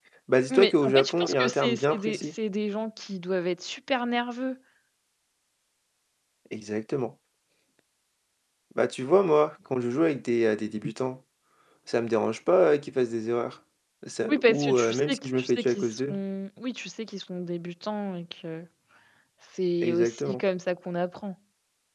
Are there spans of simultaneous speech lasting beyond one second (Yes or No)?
Yes